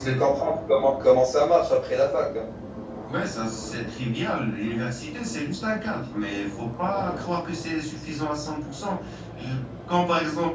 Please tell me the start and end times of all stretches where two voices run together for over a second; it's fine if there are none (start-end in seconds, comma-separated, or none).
none